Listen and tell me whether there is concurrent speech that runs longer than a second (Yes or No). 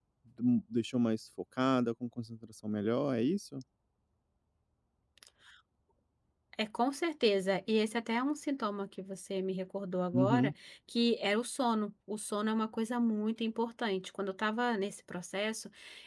No